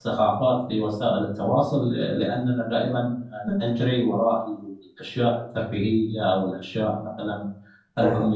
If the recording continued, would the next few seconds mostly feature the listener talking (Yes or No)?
No